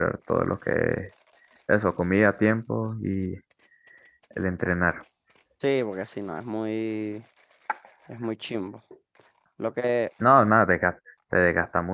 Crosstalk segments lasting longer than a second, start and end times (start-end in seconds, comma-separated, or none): none